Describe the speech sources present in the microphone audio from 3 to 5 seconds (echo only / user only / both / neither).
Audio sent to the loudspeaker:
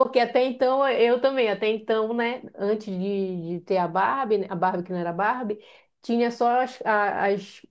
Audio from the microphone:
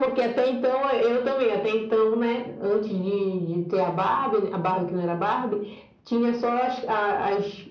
echo only